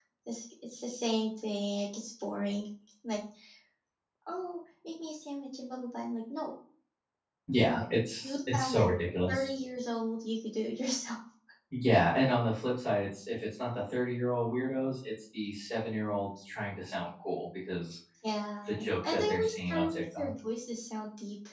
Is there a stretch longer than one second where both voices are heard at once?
Yes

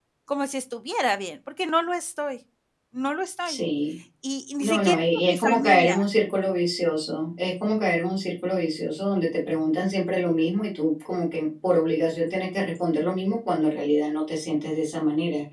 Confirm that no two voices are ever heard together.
No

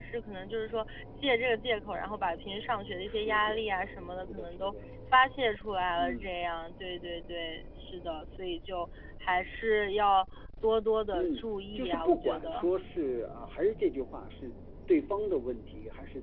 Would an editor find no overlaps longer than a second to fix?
No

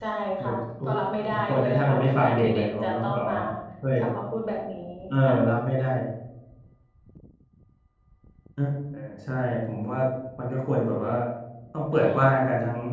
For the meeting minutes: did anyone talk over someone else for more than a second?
Yes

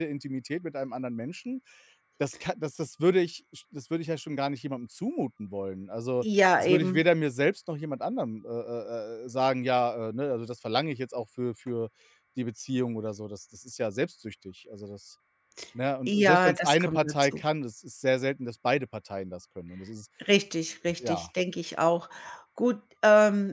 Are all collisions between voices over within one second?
No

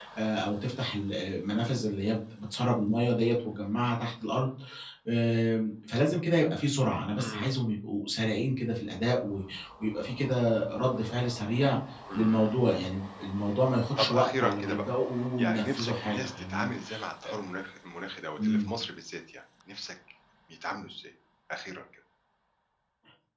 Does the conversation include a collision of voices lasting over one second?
Yes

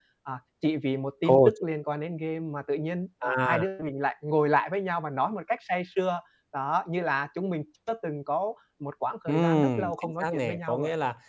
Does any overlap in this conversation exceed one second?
Yes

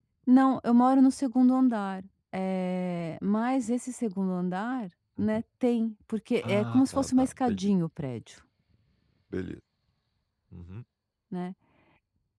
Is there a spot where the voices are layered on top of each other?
Yes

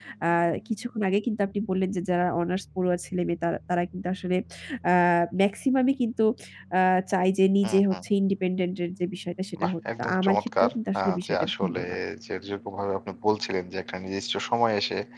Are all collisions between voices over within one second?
No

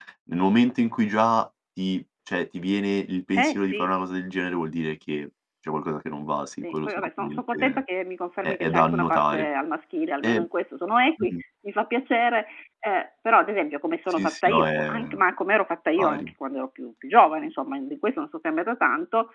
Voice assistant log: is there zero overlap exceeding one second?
No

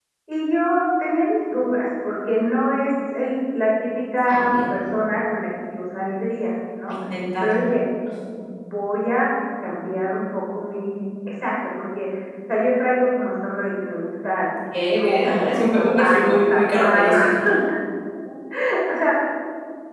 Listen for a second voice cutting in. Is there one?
Yes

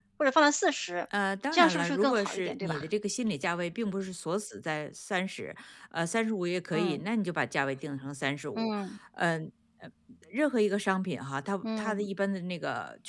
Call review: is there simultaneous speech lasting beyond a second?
Yes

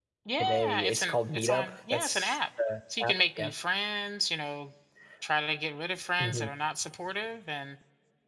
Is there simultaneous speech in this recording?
Yes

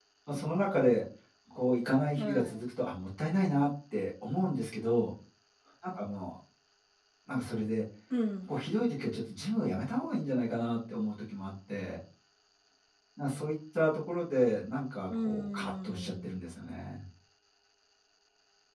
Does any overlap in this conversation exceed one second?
Yes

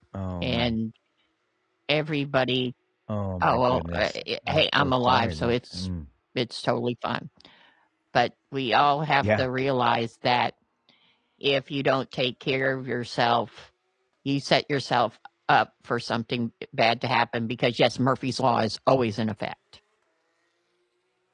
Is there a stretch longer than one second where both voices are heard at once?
Yes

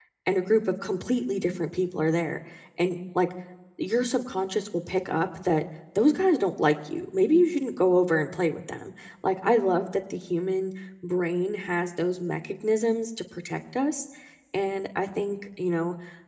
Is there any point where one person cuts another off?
No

